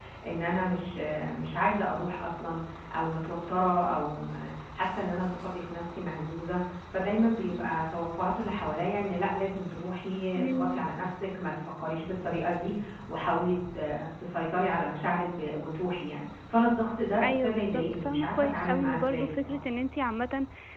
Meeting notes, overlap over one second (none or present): present